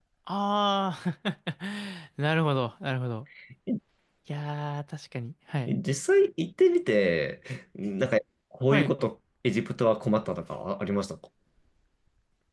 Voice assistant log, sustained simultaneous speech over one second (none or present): none